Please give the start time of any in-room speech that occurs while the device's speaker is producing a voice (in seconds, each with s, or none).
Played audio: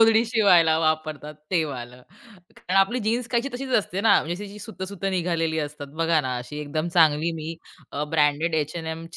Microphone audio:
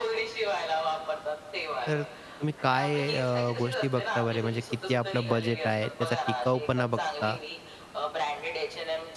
1.9 s